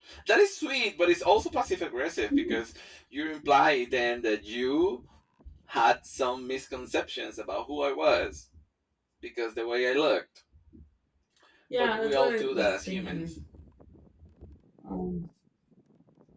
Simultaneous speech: Yes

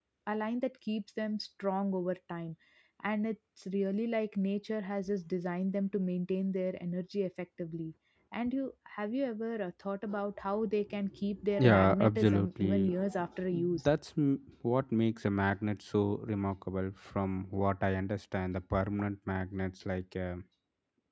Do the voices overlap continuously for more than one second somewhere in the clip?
Yes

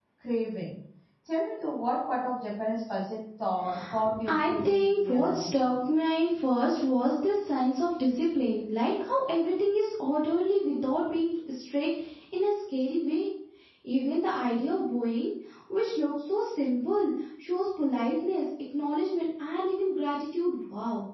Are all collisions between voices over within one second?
No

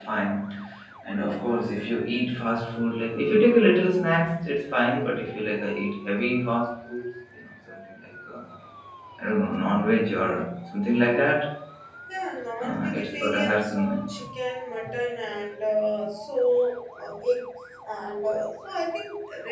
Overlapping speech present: Yes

